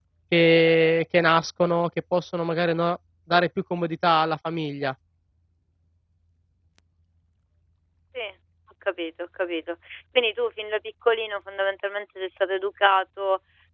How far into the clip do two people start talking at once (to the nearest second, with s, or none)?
none